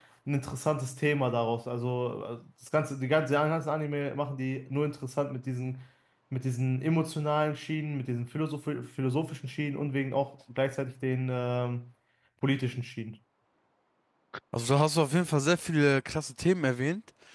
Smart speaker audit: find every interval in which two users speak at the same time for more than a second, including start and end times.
none

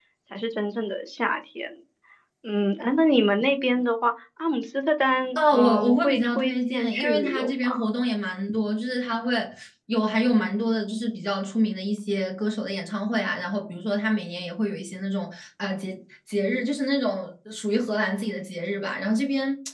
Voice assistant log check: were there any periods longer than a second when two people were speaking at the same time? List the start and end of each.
5.3-7.9

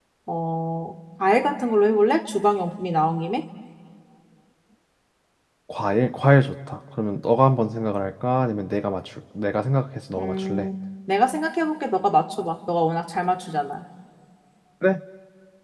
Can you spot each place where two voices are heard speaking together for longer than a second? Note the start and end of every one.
none

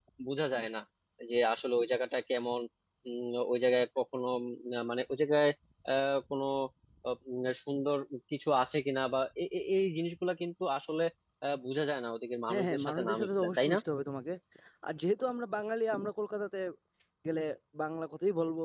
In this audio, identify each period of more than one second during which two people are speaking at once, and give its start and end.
12.5-13.8

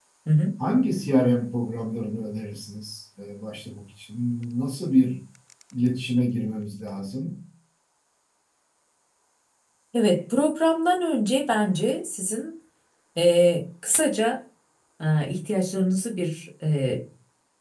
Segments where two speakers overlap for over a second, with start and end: none

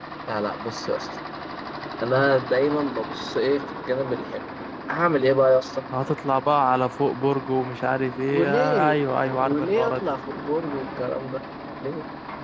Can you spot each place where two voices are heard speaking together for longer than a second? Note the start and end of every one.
8.3-10.1

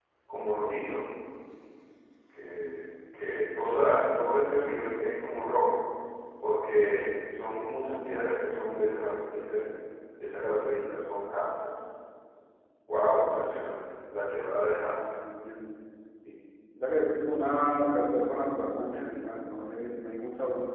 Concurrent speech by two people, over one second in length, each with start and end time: none

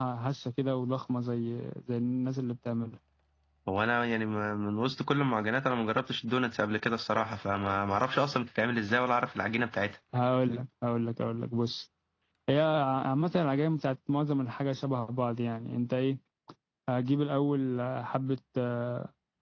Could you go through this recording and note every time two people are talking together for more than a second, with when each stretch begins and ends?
none

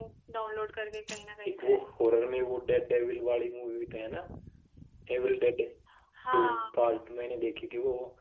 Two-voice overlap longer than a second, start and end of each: none

